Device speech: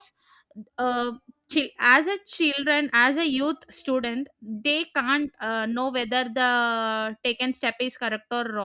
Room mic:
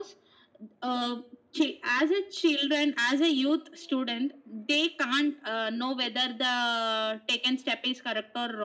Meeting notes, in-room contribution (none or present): none